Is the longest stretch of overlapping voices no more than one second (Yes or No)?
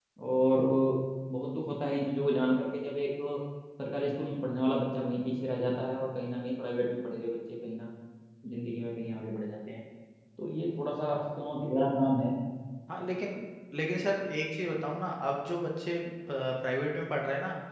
Yes